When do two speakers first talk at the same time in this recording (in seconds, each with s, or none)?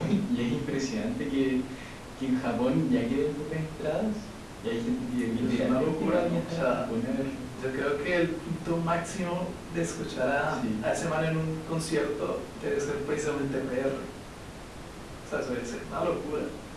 5.3 s